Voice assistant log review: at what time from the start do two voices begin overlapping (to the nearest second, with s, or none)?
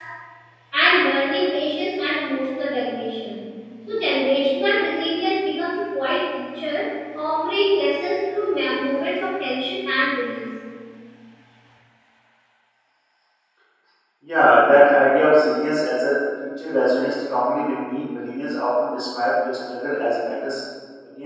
none